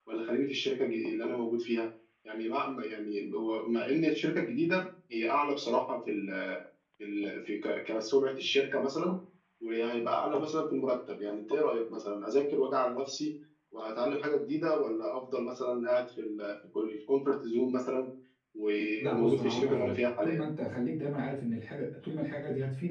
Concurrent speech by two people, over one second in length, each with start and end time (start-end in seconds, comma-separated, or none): 19.0-20.5